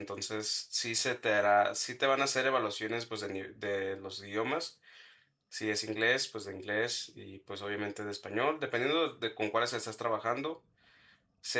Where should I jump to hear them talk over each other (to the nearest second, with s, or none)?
none